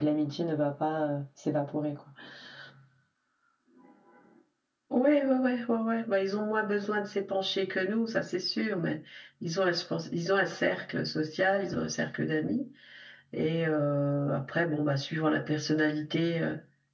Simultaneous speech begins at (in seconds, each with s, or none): none